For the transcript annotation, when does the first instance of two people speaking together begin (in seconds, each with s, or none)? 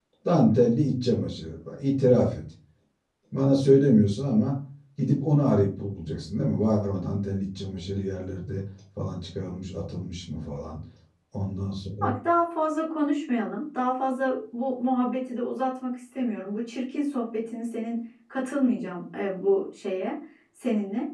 none